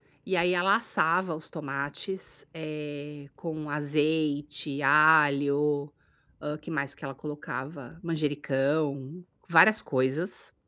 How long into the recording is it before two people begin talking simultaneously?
none

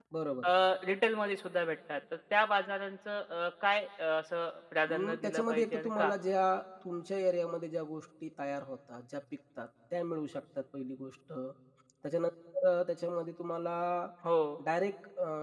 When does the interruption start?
5 s

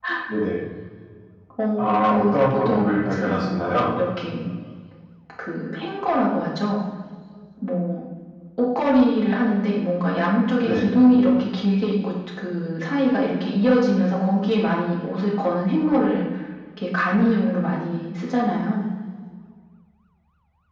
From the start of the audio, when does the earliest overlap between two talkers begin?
2 s

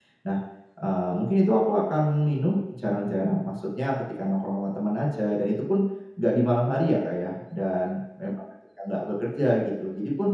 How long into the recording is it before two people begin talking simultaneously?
none

